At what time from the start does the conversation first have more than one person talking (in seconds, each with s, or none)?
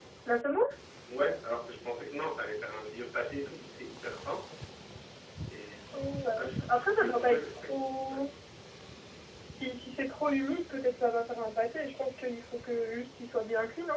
6.4 s